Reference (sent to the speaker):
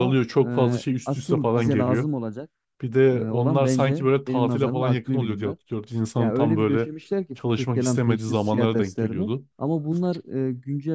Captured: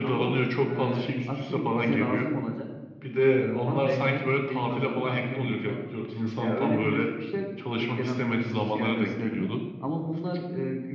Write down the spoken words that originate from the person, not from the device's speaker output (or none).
none